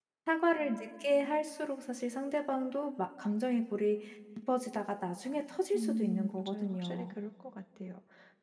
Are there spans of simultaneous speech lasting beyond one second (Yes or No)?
Yes